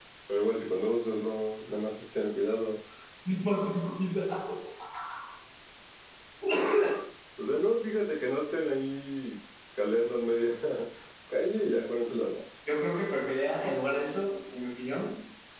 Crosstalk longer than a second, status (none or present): none